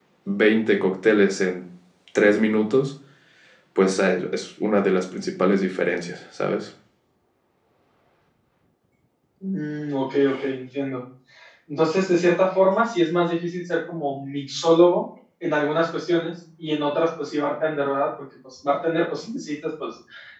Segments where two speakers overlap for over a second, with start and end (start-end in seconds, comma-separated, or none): none